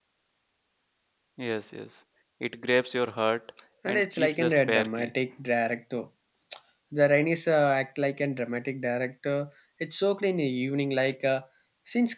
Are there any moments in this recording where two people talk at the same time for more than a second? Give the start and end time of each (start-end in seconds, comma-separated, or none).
3.9-5.1